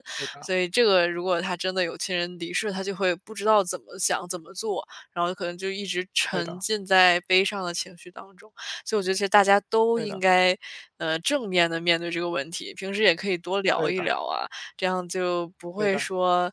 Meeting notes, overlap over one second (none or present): none